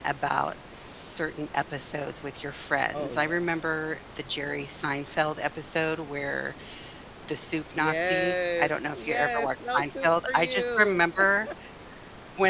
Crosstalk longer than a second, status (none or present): present